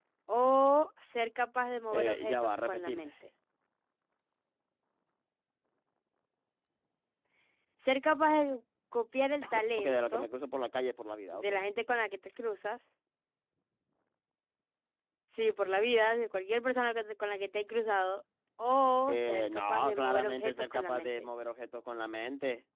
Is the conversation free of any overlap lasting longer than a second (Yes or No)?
No